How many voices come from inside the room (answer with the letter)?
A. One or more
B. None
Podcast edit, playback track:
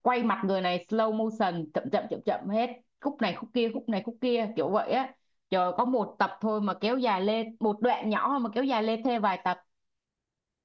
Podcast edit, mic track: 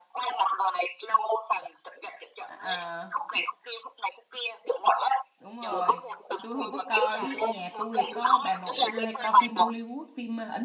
A